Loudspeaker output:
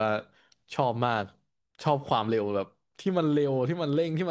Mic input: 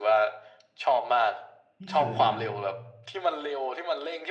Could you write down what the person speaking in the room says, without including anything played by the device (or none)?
ไม่เคยเลยครับ